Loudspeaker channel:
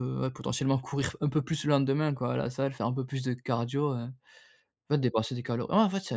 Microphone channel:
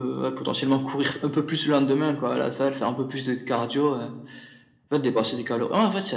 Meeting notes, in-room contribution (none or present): none